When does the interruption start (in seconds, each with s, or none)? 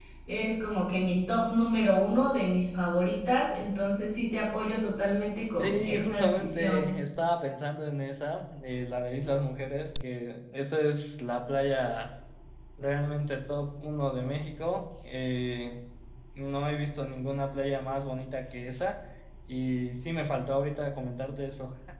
5.6 s